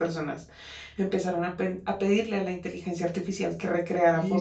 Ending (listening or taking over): taking over